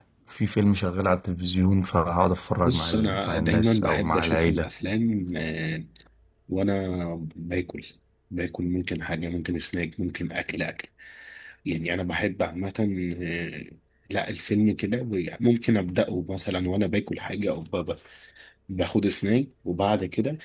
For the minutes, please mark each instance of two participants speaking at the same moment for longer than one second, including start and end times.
2.6-4.7

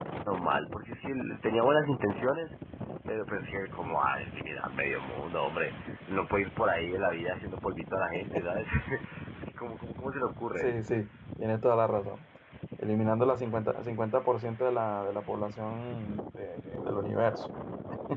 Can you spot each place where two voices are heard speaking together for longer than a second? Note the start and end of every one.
none

